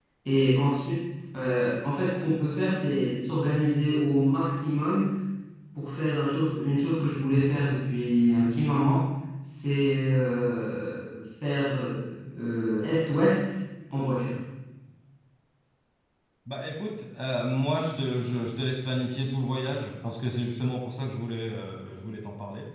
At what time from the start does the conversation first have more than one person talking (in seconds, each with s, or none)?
none